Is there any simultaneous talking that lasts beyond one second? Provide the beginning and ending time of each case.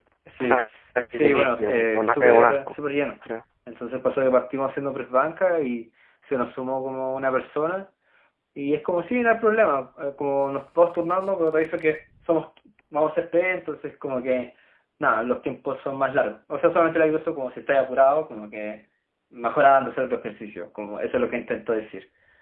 1.1-2.6

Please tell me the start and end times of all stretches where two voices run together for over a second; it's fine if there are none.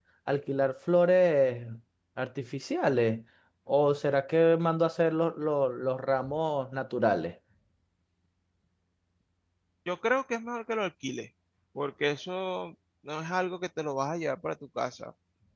none

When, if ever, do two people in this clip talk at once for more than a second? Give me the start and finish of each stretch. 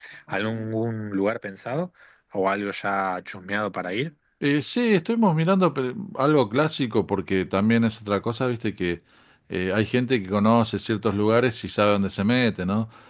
none

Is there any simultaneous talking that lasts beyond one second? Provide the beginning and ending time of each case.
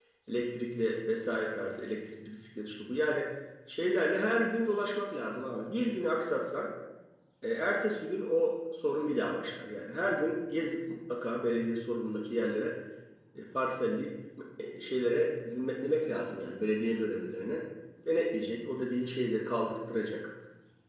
none

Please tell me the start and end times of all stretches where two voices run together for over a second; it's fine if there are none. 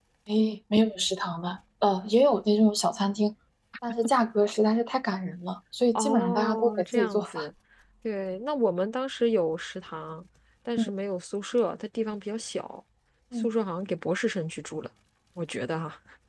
6.0-7.3

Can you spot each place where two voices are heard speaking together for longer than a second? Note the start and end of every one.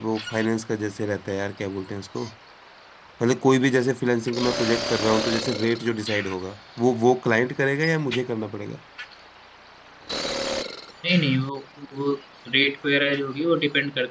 none

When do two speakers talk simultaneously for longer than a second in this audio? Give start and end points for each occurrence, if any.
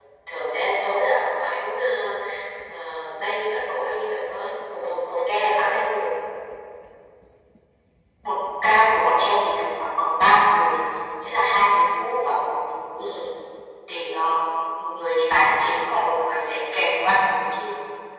none

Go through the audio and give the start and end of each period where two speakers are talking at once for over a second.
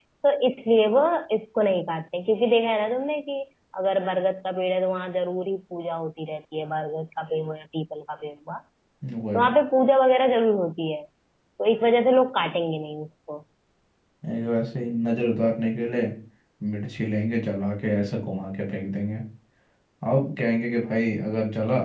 none

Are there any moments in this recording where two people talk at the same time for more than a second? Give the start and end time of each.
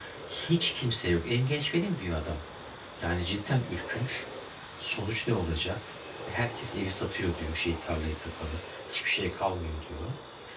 none

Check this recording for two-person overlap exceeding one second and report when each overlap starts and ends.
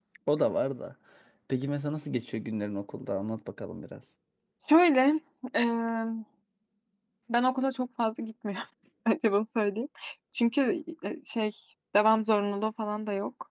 none

